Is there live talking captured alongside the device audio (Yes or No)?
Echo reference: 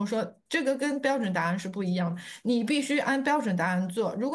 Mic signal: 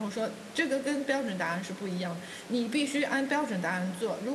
No